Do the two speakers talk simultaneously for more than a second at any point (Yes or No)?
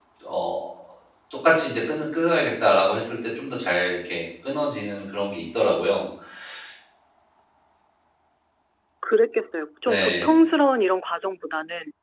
No